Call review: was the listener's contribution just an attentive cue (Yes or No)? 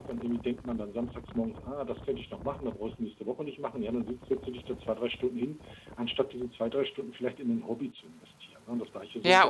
No